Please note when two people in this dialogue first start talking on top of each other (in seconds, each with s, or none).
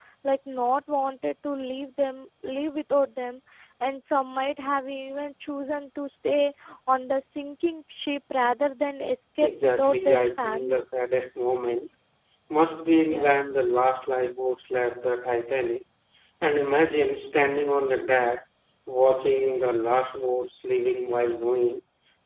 9.4 s